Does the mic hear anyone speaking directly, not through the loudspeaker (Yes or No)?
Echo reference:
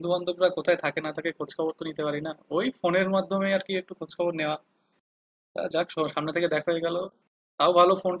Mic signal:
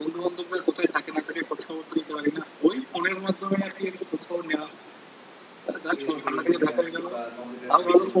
Yes